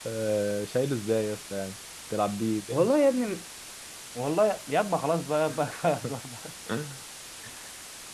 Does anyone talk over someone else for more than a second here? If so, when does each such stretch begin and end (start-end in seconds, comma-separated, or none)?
none